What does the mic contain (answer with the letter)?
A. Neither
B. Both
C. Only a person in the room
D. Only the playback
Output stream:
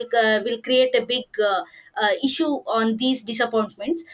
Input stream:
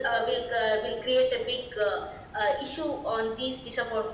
D